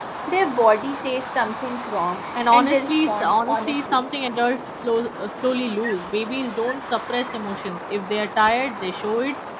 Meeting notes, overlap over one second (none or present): present